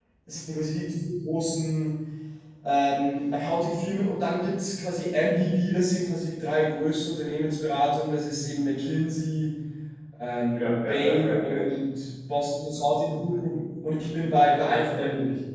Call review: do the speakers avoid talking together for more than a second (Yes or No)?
No